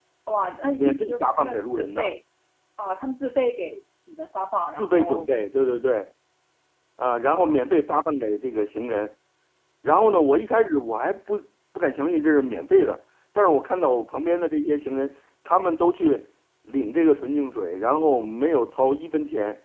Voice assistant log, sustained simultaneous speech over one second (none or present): present